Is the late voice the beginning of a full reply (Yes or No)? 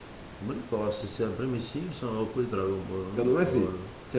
Yes